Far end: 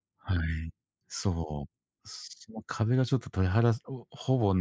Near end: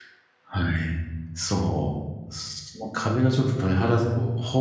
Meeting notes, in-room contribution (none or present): none